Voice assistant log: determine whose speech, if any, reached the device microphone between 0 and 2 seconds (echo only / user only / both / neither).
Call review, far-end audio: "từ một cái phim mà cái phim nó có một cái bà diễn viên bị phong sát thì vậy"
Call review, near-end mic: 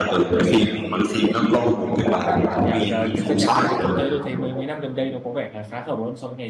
echo only